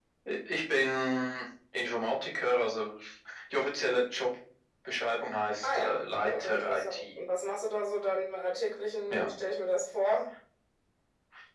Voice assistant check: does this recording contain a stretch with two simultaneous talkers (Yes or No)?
Yes